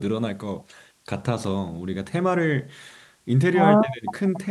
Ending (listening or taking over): listening